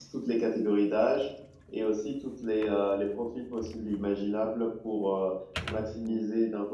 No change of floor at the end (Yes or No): Yes